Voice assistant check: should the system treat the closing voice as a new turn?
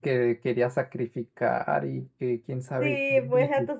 Yes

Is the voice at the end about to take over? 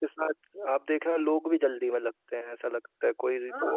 No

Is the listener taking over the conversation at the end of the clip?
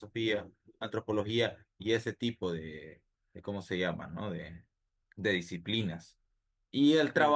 No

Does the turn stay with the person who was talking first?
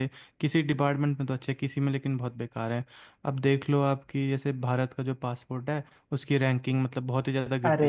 No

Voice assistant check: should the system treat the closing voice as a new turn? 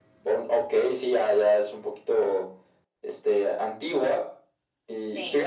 No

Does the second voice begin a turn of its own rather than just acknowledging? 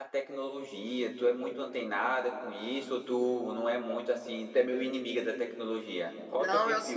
Yes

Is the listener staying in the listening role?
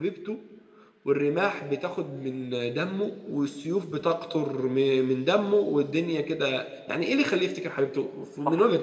No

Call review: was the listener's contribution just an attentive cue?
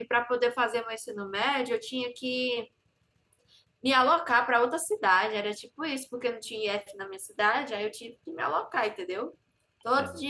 Yes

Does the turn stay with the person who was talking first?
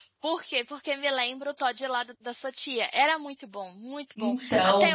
Yes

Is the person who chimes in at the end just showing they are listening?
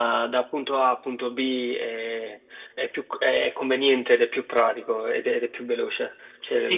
No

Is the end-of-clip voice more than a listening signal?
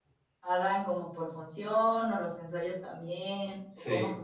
Yes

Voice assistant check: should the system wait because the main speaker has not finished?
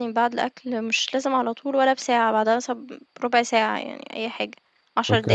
No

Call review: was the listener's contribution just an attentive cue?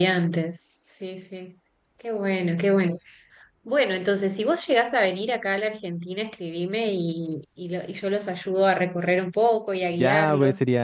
No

